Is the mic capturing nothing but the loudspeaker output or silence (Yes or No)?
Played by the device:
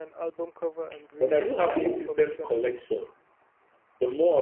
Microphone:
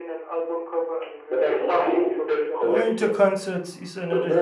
No